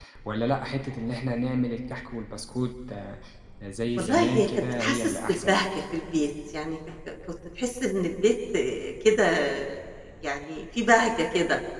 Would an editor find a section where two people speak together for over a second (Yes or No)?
Yes